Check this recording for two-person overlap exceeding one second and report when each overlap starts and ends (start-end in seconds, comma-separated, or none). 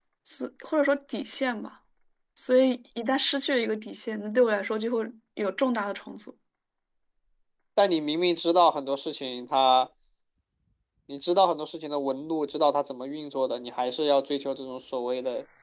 none